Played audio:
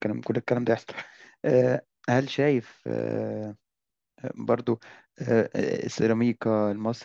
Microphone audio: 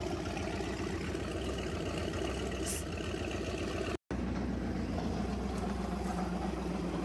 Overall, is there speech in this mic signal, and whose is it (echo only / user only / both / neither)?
neither